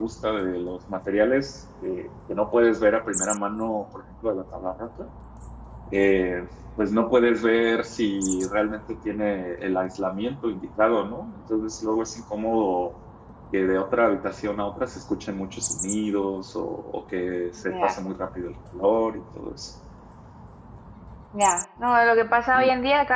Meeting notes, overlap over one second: none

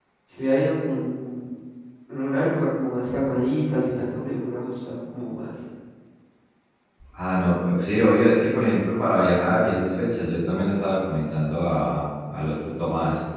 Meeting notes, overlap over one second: none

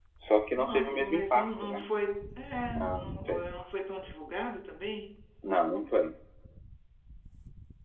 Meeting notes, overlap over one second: present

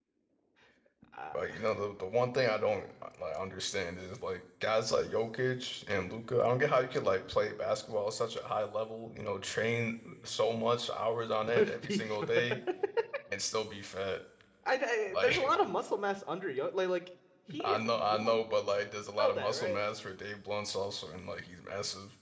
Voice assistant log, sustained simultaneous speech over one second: present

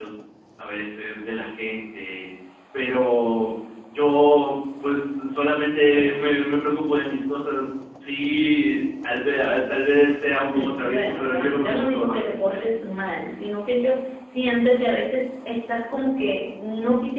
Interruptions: present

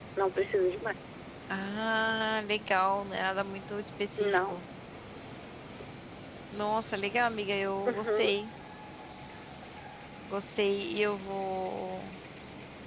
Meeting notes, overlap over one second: none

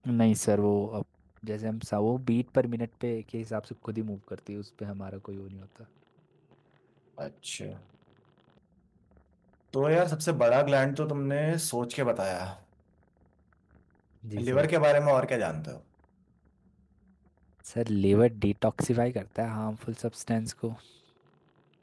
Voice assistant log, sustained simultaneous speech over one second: none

